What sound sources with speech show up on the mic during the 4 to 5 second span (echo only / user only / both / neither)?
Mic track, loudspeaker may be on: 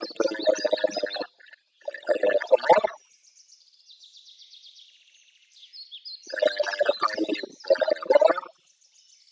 neither